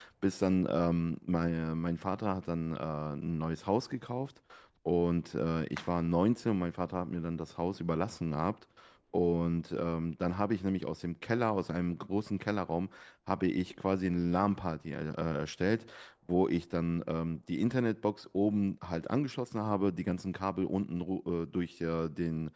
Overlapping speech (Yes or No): No